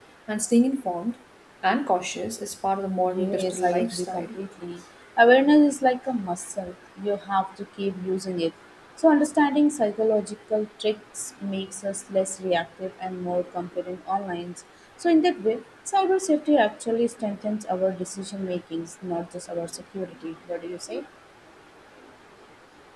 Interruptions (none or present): present